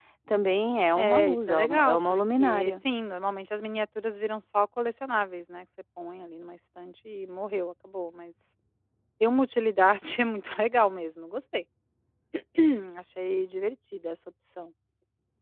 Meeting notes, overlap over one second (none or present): present